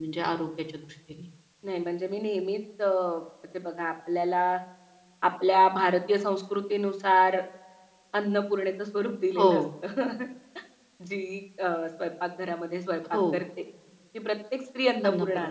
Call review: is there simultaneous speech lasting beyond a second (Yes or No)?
No